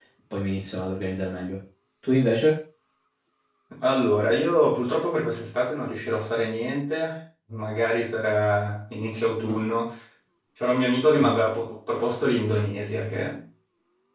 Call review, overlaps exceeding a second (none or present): none